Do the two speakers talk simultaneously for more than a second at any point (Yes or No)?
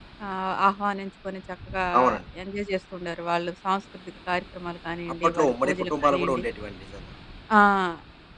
Yes